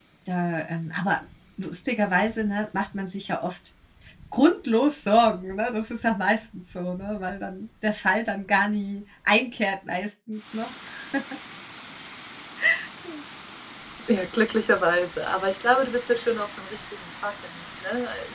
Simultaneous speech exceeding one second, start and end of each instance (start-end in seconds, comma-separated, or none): none